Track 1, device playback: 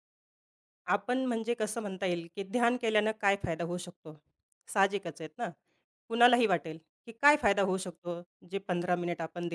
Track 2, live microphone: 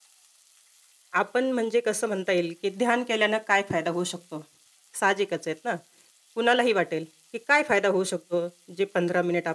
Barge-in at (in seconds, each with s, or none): none